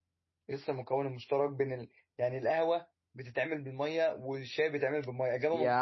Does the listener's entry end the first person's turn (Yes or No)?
Yes